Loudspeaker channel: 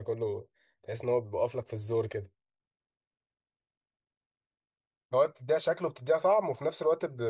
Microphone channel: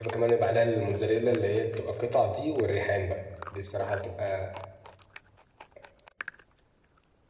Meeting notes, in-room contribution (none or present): present